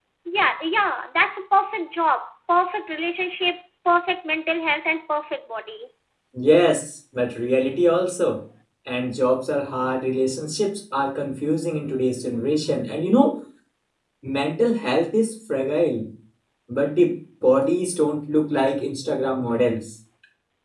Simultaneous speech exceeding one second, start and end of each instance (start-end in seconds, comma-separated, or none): none